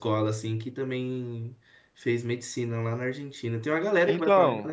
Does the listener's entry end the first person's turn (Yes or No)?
Yes